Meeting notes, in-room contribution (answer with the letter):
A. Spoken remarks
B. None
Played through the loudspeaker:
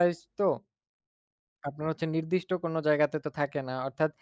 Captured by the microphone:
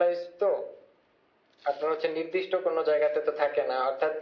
B